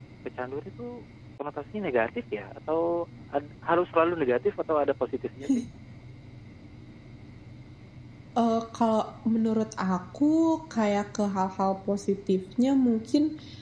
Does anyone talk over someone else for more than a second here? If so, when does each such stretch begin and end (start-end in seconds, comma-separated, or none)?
none